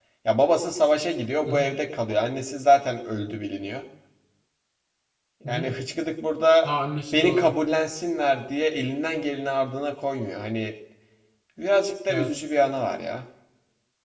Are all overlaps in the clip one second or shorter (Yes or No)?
Yes